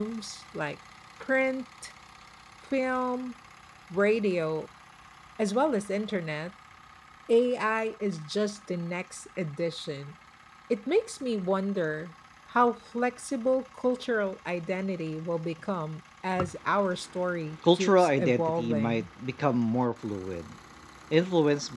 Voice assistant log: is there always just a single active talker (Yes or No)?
No